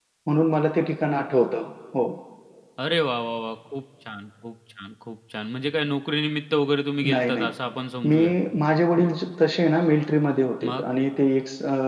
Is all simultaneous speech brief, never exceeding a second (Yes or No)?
Yes